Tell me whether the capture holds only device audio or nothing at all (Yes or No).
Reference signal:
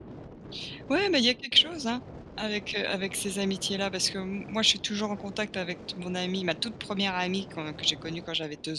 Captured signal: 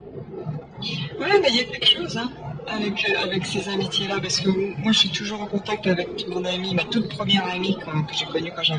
Yes